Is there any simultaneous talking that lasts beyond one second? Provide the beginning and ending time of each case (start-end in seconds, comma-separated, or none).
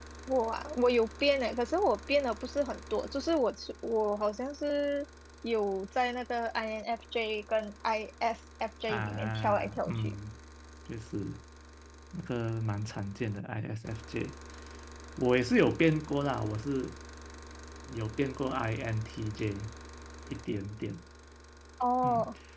8.9-10.2